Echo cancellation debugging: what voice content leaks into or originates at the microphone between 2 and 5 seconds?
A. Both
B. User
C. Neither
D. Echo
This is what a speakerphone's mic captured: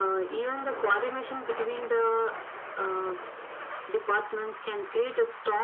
D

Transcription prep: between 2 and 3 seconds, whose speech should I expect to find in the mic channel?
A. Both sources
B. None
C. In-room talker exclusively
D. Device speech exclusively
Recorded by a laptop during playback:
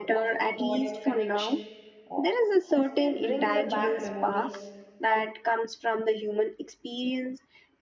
A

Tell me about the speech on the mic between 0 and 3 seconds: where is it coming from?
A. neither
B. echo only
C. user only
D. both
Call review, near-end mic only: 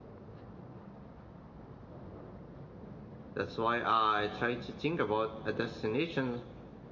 A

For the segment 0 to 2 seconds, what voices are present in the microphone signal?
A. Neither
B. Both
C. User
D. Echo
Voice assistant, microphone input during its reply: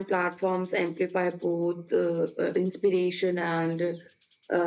D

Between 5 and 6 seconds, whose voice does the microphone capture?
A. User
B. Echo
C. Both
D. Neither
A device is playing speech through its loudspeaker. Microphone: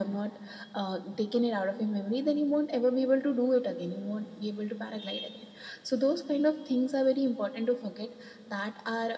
B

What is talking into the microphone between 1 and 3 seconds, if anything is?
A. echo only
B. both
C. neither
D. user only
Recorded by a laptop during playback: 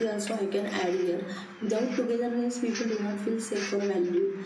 D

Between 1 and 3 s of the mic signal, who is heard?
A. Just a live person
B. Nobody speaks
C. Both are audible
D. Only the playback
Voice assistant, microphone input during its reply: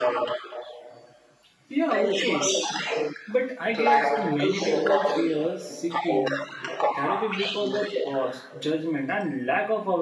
C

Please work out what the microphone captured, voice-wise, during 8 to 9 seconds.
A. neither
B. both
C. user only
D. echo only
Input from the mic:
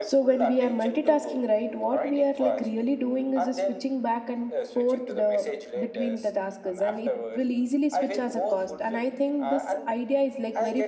B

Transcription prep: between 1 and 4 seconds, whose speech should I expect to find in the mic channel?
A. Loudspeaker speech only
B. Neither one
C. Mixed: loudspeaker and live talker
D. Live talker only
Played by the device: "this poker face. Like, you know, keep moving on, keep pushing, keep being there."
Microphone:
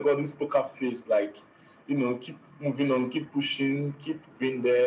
A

